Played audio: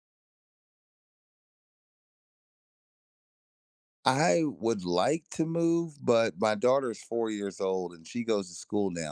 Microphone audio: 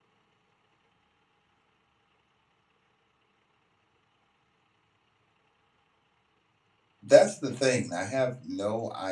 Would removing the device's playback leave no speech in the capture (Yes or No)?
No